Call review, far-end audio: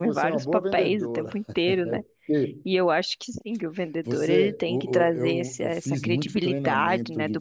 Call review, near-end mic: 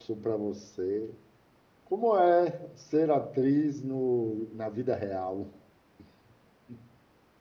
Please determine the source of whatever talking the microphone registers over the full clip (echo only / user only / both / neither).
user only